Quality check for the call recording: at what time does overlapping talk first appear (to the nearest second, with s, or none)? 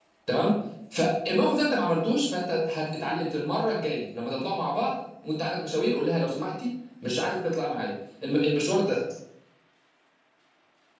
none